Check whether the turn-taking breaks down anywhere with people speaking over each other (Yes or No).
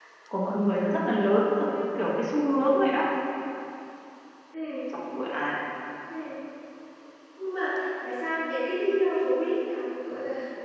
No